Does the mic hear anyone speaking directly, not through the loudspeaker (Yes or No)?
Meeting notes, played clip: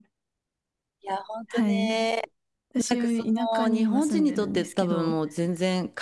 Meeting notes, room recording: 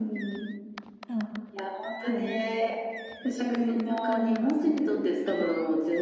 Yes